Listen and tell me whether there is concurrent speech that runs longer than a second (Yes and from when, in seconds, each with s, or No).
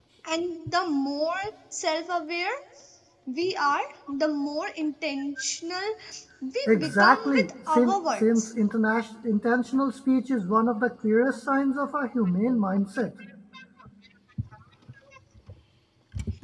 Yes, from 6.7 s